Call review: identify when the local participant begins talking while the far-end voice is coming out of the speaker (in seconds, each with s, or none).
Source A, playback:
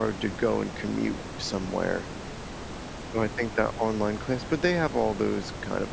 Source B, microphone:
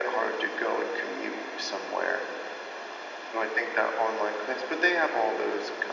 none